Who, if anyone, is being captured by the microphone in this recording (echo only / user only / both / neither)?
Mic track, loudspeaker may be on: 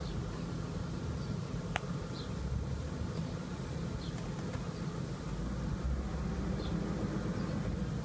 neither